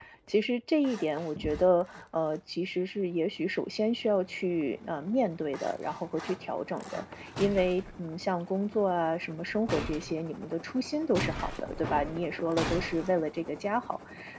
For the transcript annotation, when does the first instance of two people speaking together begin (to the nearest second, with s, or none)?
none